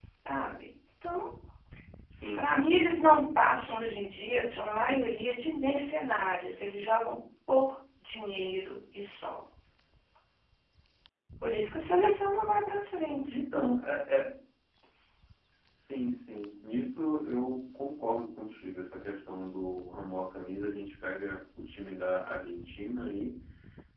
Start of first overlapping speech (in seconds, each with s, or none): none